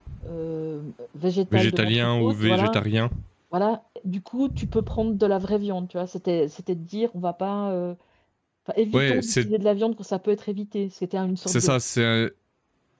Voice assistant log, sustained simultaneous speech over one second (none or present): present